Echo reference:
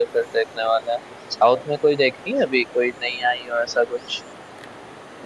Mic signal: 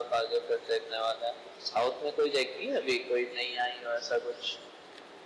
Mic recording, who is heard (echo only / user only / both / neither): echo only